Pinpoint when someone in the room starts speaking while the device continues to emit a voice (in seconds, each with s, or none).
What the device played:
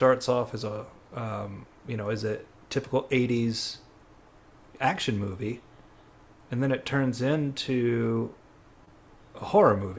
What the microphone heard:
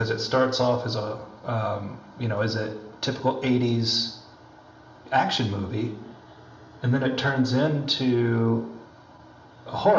none